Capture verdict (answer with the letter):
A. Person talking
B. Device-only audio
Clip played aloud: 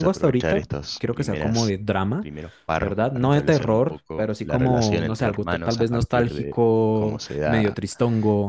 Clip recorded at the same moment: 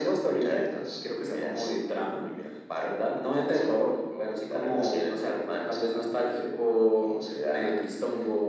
B